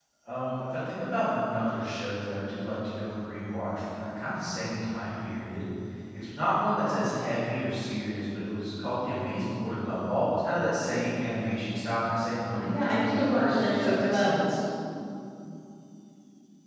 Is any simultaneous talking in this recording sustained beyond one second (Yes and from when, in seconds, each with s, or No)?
Yes, from 12.5 s